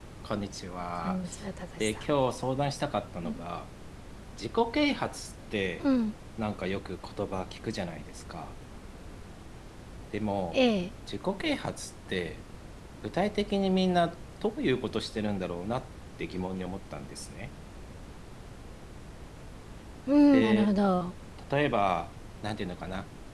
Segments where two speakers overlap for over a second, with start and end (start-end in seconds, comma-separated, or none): none